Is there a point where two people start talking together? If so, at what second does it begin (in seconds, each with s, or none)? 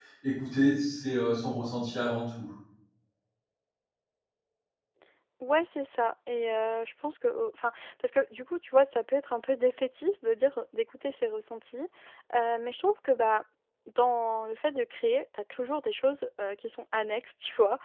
none